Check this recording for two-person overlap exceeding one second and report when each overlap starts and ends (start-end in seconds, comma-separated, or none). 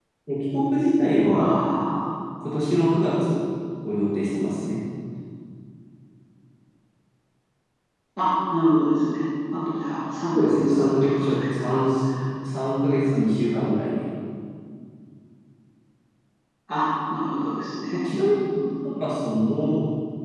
10.3-11.8